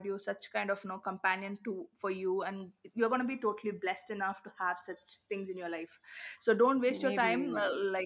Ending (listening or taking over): listening